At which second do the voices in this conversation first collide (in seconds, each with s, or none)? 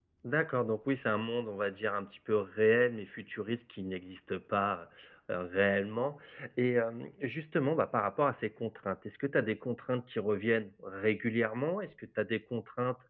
none